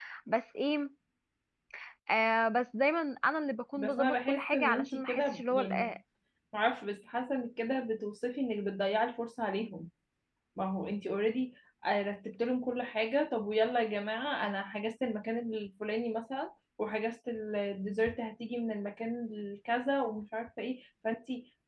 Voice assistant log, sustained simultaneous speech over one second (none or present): present